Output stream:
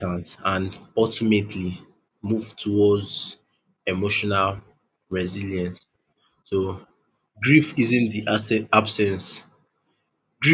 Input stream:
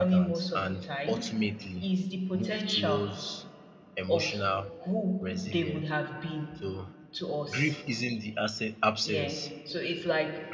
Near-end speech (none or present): present